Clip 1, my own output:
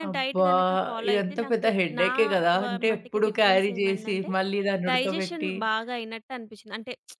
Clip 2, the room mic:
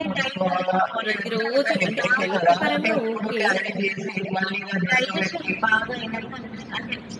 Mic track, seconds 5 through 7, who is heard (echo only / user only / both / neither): echo only